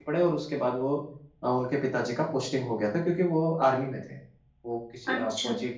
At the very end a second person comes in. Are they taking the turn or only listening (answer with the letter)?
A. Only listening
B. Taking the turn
A